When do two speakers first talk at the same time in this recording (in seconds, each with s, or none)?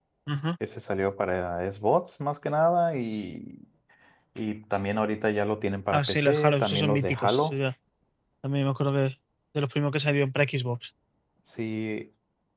5.9 s